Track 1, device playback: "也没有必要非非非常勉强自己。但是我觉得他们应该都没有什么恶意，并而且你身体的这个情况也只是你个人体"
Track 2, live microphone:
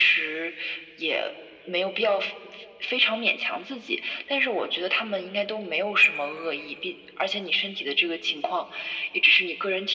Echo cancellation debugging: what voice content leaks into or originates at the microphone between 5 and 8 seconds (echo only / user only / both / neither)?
echo only